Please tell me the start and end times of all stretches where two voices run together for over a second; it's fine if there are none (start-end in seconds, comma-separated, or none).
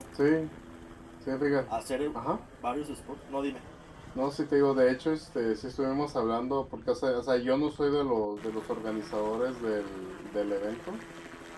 none